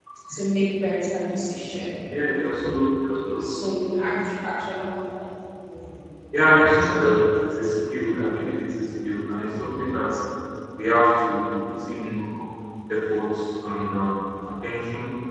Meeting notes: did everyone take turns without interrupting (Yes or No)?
Yes